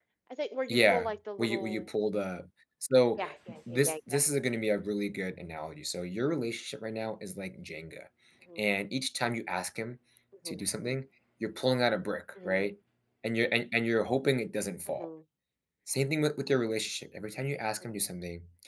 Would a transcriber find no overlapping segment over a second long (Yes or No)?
No